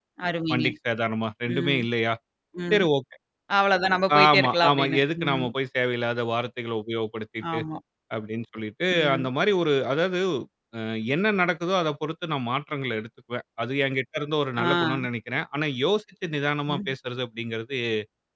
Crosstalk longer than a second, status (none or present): present